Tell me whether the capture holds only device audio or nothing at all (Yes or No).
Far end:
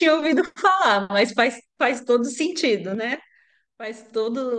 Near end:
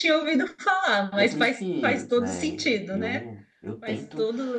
No